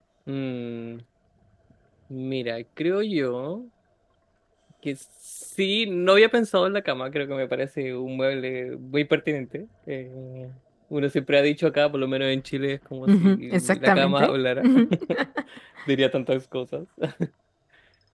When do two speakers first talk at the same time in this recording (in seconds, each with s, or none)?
13.0 s